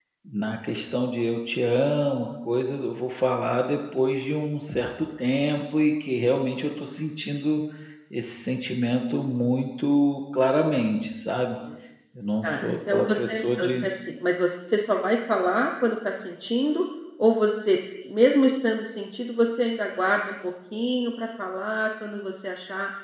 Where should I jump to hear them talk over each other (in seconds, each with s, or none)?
12.4 s